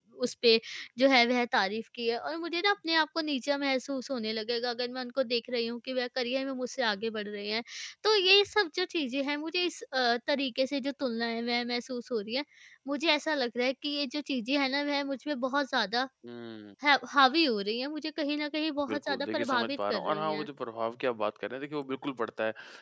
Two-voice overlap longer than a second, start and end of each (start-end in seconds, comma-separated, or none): 18.9-20.5